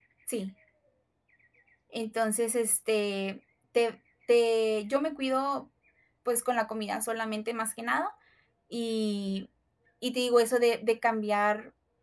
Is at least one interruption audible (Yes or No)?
No